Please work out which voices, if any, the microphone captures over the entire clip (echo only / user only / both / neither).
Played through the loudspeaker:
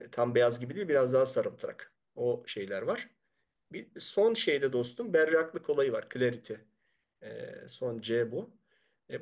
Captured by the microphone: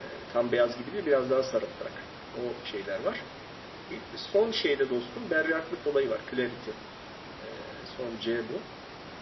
echo only